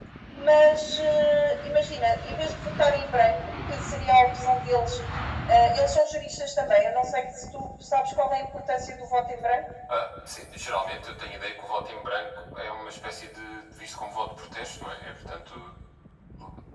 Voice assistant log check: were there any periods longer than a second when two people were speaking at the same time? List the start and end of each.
none

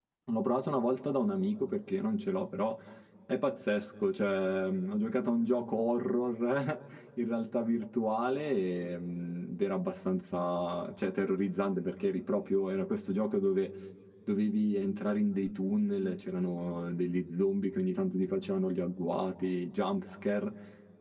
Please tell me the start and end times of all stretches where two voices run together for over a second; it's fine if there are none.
none

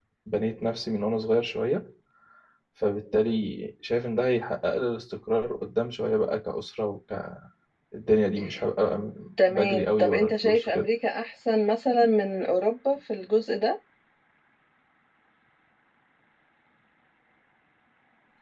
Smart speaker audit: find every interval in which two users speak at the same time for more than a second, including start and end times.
9.5-10.9

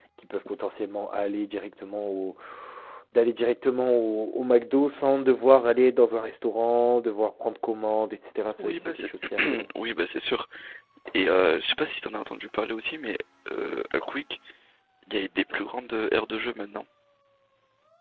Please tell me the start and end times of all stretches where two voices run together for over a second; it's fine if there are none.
none

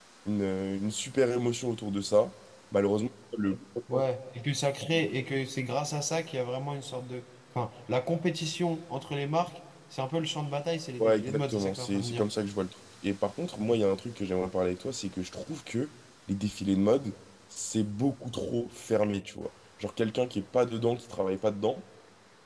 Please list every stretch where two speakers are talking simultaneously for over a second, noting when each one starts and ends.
11.0-12.2

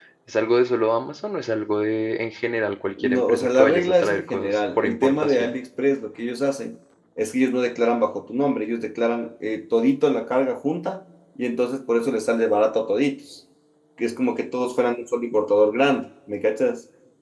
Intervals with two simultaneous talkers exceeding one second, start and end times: 3.0-5.6

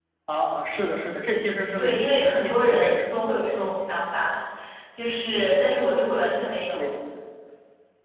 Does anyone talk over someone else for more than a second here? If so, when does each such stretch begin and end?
1.8-3.1

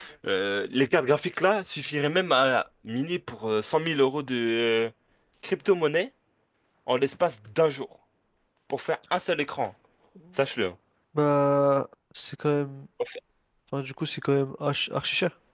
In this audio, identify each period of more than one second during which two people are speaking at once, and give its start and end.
none

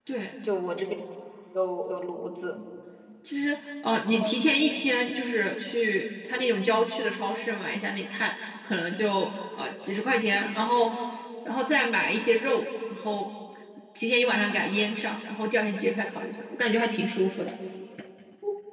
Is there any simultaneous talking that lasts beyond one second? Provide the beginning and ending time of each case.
none

